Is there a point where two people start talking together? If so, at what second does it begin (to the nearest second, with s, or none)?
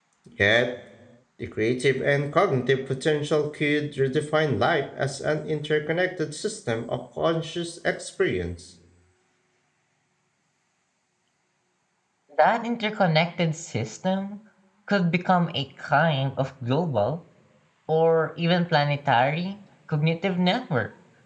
none